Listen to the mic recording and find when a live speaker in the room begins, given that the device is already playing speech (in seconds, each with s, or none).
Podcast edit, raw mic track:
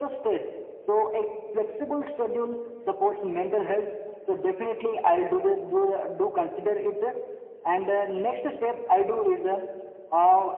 none